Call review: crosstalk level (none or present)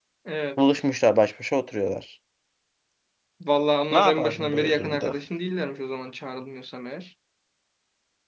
present